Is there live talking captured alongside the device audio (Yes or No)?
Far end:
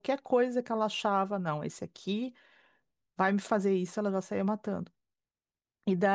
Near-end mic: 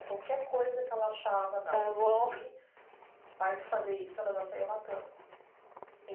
Yes